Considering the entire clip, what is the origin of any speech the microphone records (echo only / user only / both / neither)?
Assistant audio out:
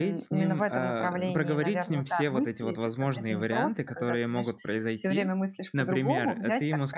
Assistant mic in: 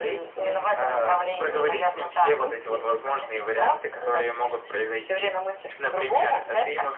echo only